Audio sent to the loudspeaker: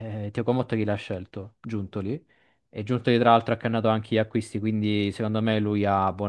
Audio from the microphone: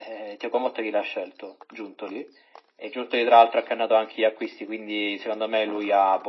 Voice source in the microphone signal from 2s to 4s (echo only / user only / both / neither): echo only